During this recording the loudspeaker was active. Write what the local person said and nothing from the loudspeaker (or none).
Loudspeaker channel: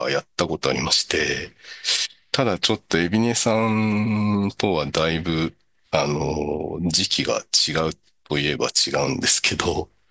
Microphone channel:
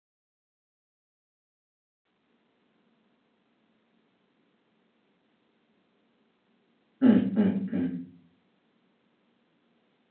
うん、うん、うん。